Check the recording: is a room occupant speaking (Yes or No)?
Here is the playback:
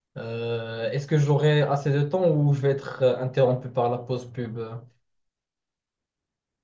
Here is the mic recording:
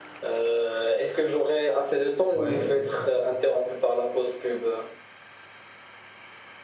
Yes